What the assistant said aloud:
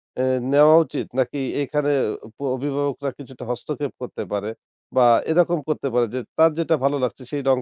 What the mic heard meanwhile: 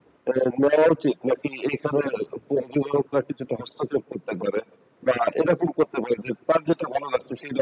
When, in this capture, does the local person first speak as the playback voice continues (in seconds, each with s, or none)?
none